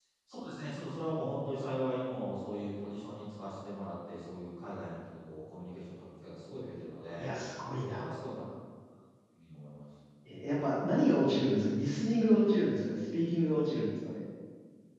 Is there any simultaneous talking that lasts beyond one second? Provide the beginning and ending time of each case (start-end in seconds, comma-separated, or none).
none